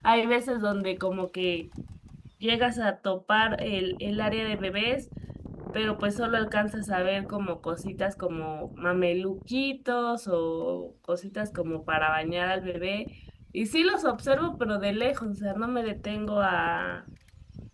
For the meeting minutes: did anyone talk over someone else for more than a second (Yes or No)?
No